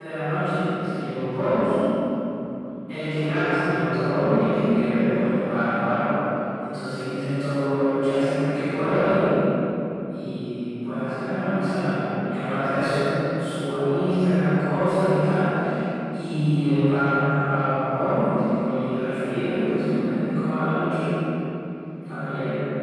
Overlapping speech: No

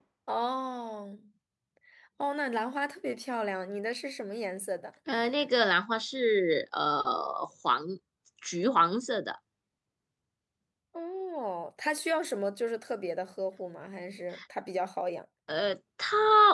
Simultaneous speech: No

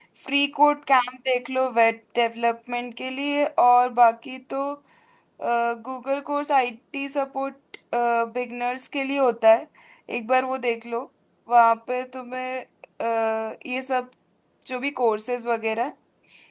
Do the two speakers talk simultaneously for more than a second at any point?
No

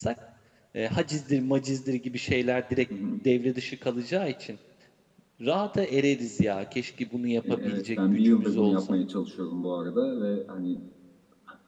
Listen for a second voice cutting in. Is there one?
Yes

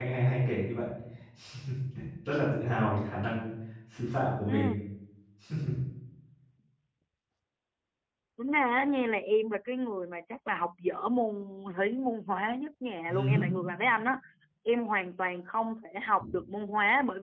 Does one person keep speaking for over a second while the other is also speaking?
No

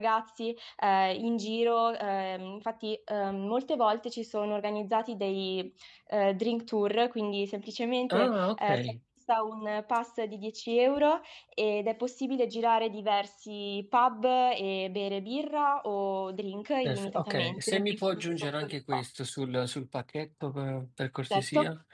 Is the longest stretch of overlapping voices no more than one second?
No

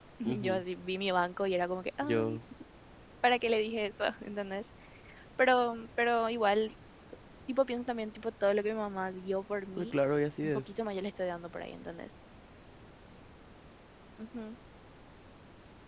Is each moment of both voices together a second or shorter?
Yes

